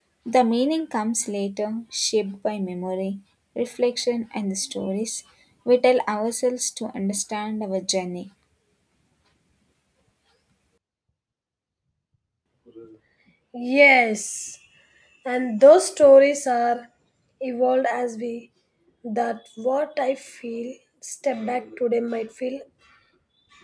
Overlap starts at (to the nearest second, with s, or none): none